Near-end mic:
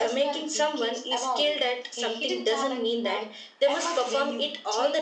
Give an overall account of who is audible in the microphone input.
echo only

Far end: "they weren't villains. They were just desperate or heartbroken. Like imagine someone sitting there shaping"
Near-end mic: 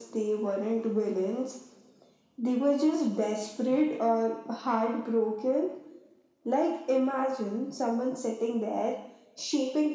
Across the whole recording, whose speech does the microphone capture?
echo only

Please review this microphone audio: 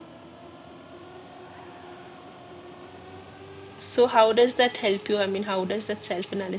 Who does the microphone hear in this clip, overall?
user only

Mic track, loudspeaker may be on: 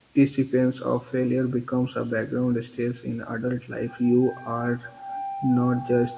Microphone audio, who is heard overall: user only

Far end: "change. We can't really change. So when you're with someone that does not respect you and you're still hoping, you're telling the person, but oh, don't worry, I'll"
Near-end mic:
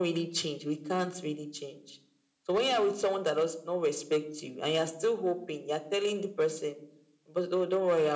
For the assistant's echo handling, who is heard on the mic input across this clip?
echo only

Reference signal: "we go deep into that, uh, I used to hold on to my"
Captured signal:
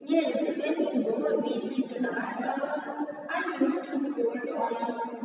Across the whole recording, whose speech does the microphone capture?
echo only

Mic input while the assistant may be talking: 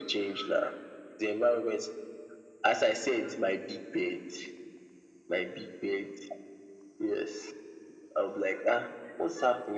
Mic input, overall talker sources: echo only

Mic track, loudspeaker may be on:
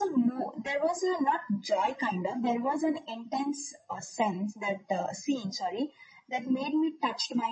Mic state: echo only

